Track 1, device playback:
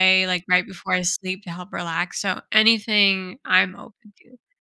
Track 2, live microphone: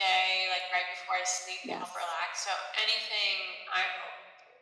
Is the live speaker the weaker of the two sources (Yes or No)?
Yes